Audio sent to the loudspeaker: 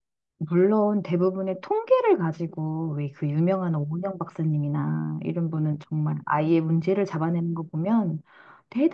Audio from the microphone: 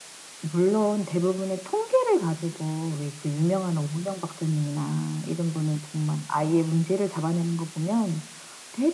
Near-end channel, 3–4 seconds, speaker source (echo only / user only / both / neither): echo only